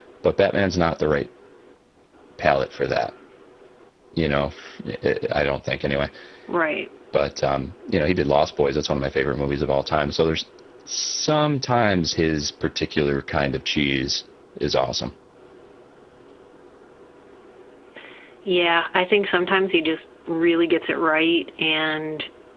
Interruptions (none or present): none